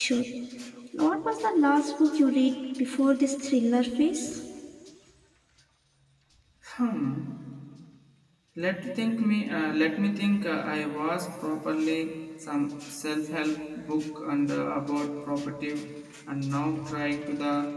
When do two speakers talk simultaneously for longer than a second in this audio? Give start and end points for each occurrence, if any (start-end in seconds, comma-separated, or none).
none